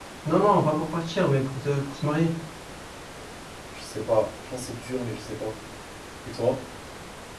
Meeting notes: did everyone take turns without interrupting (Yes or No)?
Yes